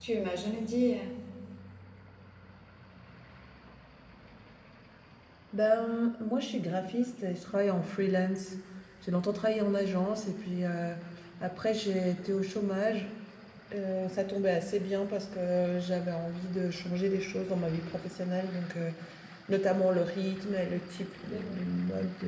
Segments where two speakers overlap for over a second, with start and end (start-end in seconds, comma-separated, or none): none